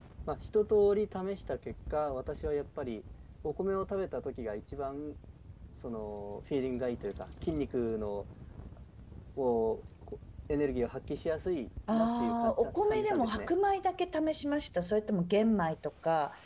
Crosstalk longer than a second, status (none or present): present